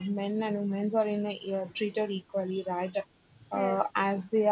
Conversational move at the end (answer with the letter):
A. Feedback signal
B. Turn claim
A